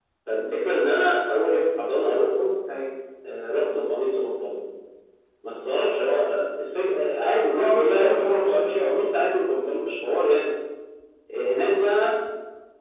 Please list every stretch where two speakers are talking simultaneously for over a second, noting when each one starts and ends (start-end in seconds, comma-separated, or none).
7.5-8.9